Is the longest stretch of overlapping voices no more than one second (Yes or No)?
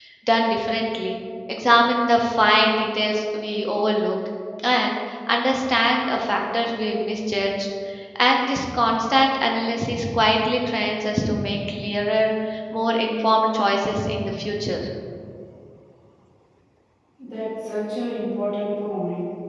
Yes